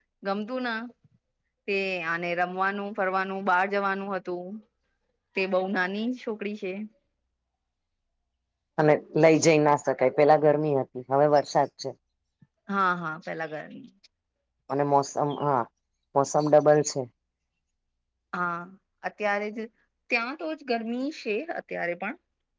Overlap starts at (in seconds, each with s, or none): none